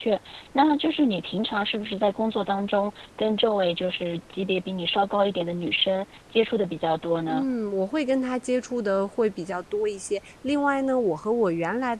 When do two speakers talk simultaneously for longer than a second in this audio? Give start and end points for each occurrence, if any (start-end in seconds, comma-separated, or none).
none